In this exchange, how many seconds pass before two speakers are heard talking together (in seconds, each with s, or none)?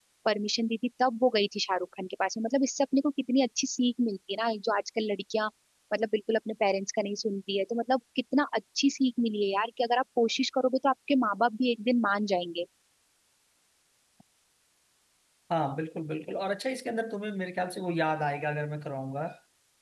none